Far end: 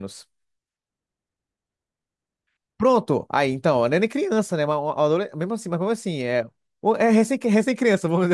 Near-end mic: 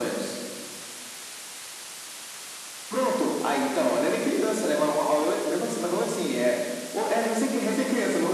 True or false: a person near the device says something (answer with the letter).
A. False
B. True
A